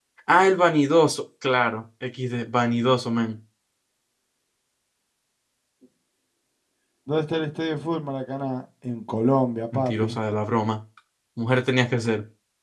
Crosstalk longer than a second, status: none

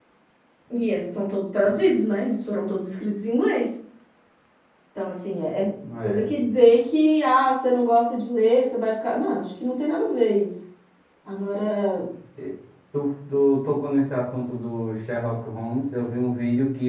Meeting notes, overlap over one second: none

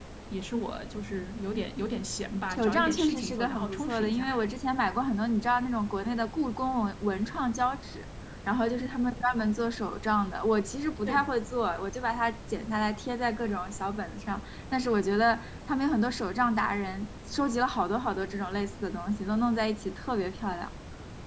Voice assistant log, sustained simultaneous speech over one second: present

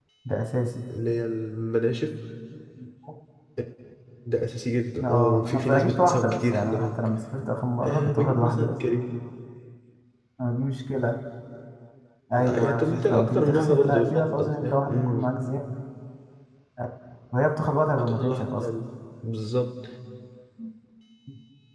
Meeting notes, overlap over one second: present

